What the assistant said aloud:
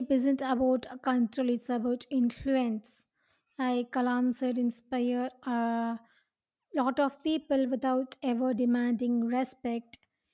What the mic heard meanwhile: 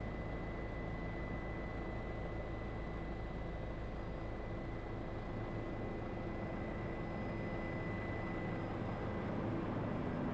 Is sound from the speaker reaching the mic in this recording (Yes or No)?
No